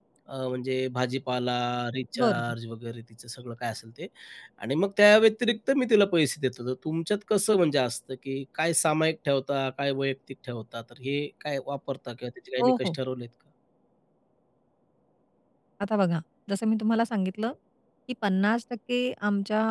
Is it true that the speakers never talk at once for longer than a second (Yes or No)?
Yes